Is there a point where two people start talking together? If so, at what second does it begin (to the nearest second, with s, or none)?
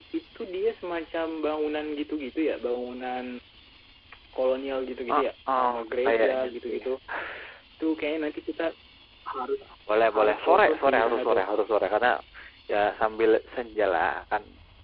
5 s